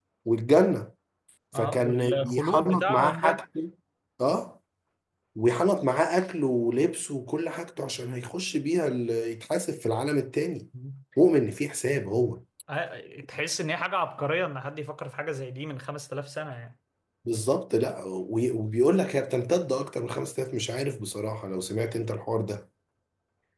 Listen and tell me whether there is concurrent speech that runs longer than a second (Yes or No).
Yes